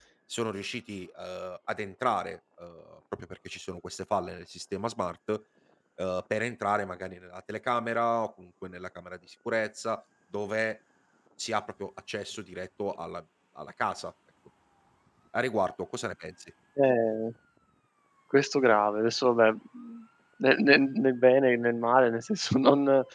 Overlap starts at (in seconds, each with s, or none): none